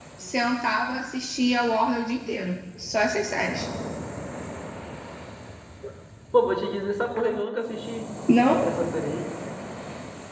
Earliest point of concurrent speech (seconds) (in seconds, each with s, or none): none